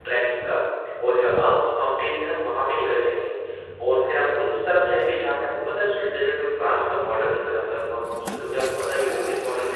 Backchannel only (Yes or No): Yes